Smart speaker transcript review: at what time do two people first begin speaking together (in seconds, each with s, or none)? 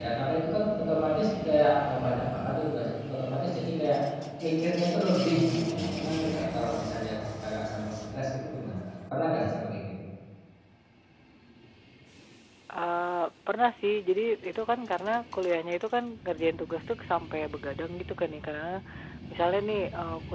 none